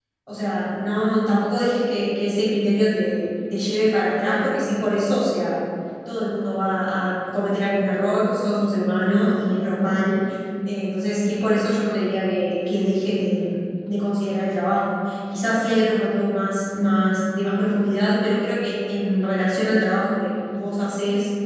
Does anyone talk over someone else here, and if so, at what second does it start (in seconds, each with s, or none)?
none